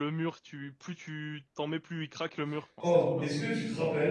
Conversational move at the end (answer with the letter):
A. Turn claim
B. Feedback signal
A